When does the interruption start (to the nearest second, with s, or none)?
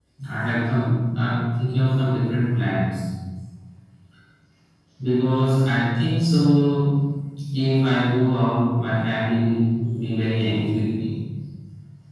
none